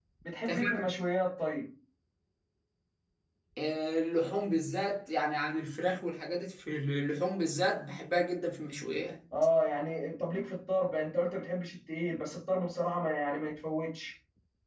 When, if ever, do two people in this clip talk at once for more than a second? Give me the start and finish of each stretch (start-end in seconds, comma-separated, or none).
none